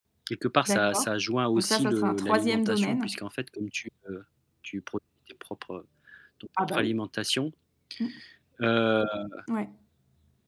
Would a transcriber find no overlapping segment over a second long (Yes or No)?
No